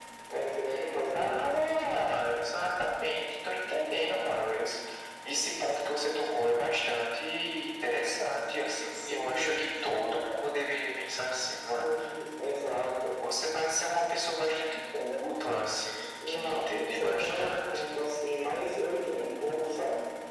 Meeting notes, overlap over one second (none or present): present